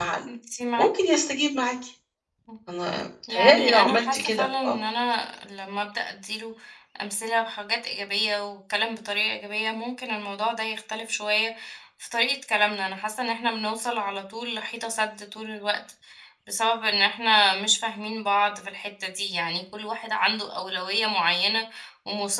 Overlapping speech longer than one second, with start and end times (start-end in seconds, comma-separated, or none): 3.3-4.8